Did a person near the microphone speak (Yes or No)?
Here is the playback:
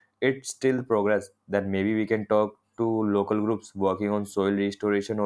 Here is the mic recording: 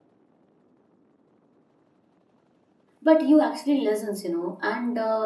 Yes